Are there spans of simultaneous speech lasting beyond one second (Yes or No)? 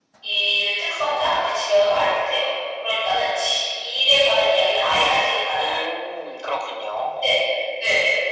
No